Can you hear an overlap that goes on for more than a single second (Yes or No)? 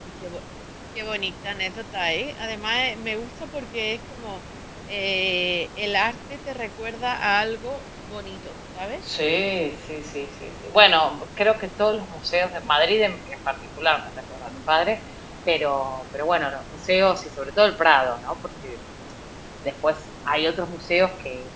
No